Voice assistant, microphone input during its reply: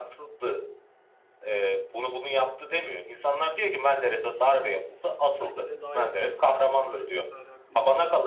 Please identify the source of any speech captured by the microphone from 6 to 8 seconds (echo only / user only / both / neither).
both